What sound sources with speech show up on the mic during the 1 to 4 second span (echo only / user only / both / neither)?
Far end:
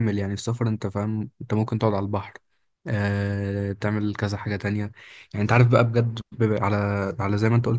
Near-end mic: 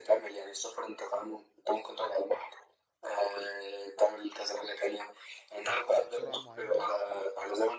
echo only